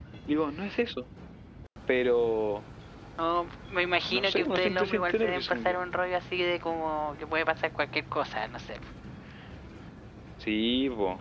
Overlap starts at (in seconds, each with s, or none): 4.1 s